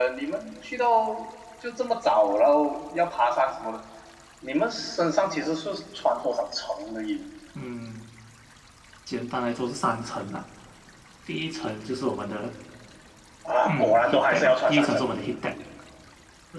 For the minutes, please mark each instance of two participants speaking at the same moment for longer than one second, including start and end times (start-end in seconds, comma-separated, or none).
13.7-15.0